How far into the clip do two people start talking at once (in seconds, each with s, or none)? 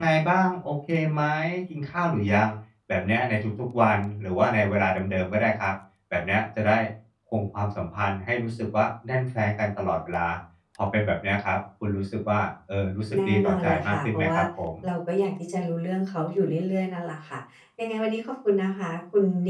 13.1 s